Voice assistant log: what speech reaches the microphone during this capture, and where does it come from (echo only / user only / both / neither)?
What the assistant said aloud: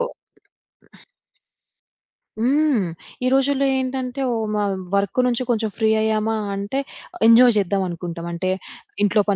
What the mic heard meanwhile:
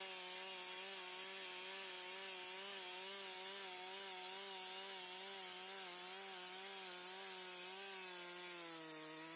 neither